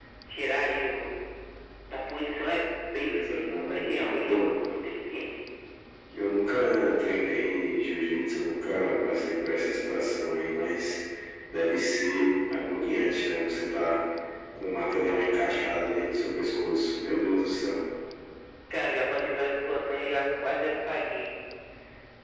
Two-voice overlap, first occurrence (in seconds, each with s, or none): 3.0 s